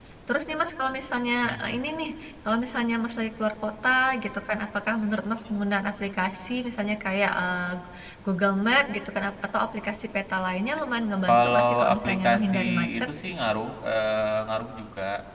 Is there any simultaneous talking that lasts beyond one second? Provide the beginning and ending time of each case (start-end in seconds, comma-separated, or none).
11.3-13.1